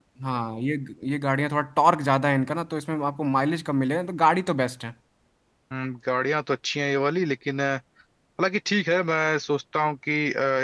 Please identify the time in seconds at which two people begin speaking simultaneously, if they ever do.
none

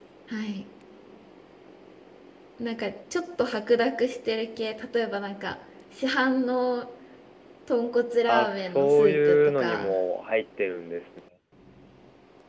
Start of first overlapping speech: 8.3 s

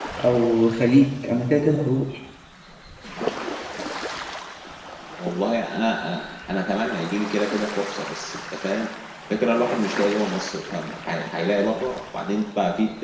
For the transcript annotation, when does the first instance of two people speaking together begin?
none

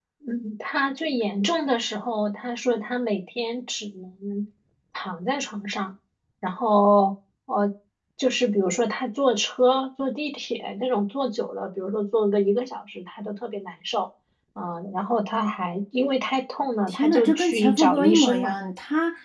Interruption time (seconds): 16.9 s

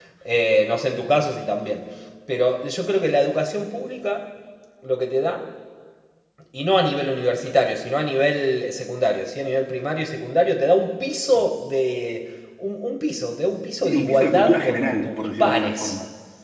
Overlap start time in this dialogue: 13.8 s

